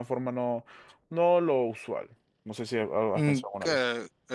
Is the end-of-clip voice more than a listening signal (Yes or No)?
Yes